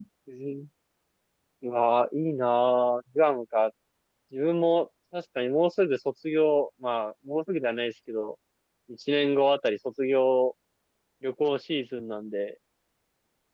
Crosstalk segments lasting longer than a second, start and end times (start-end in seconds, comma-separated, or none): none